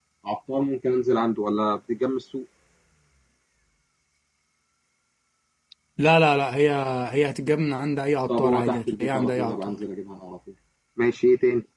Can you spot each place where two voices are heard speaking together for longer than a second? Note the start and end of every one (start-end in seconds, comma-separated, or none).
8.3-9.8